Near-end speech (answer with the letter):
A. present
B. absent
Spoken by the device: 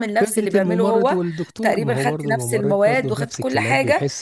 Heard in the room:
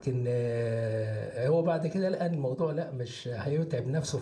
A